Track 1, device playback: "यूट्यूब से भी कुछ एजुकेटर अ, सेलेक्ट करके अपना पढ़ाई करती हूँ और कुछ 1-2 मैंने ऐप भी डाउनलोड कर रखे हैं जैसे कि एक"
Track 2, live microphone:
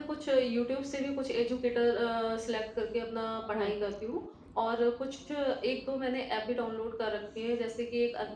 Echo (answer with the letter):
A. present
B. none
A